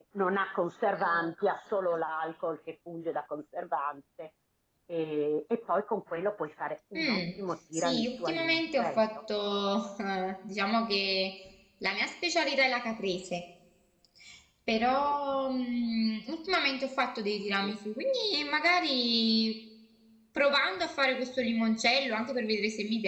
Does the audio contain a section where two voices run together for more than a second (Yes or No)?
Yes